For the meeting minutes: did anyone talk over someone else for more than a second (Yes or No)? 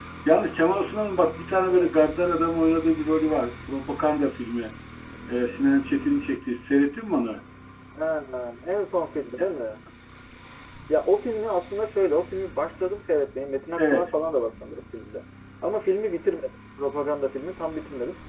No